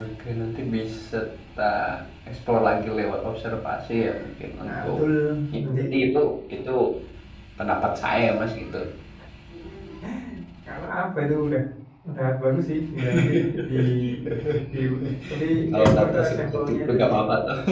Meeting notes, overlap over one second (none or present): present